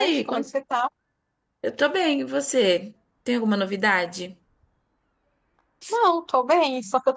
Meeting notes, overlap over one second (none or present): none